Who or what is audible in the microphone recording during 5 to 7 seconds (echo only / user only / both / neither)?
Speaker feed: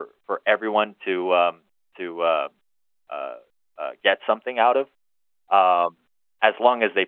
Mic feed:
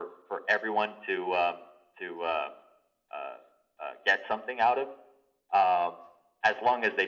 echo only